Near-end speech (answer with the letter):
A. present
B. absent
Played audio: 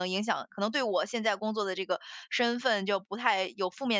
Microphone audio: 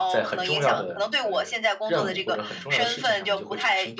A